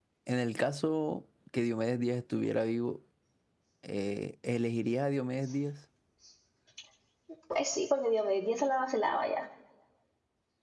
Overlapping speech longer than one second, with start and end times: none

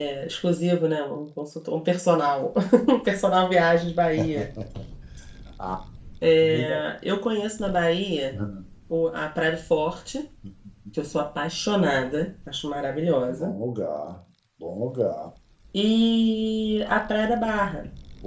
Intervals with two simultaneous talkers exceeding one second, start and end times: none

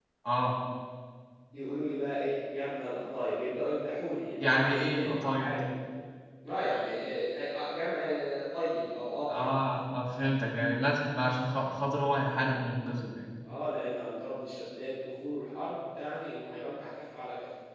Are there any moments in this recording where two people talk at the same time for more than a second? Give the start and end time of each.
4.4-5.7

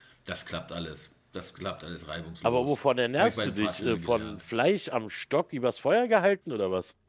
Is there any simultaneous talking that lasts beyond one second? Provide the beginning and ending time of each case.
3.2-4.4

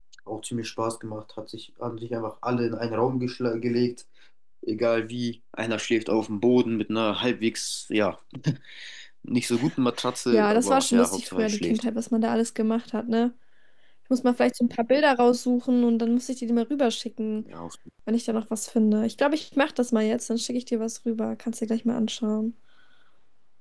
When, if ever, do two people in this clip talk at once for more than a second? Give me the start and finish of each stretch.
10.3-11.8

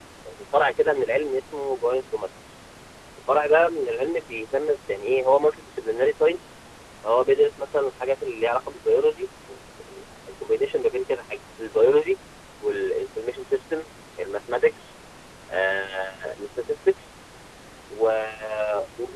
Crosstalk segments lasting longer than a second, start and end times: none

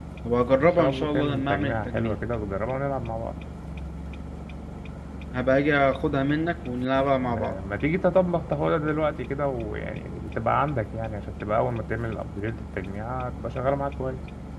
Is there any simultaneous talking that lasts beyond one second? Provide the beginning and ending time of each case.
0.6-2.1

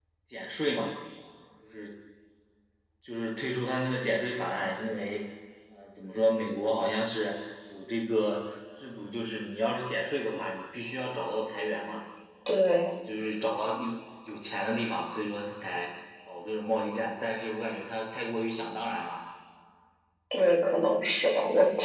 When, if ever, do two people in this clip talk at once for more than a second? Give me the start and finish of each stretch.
none

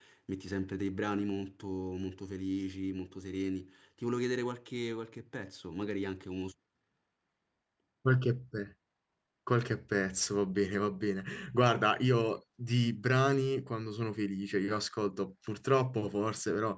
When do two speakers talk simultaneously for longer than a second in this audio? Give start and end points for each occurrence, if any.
none

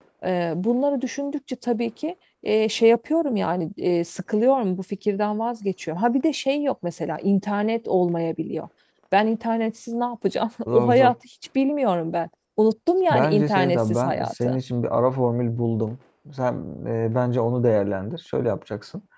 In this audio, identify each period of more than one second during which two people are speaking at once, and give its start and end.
13.1-14.6

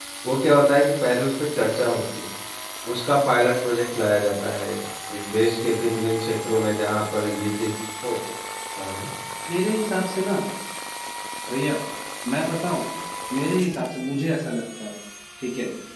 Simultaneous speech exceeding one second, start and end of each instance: none

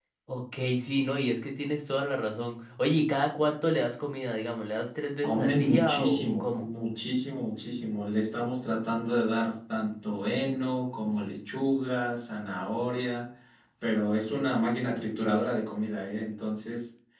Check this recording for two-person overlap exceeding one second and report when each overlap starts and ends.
5.2-6.6

